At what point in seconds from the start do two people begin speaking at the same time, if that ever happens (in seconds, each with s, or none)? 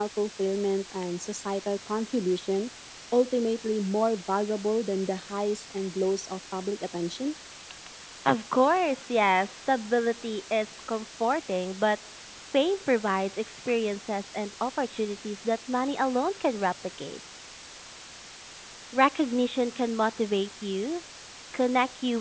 none